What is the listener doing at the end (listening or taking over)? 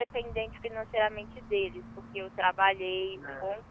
listening